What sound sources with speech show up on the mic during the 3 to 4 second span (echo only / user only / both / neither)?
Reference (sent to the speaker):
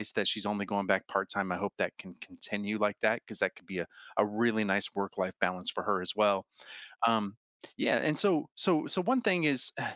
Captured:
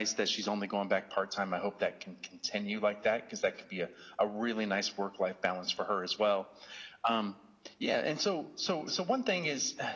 echo only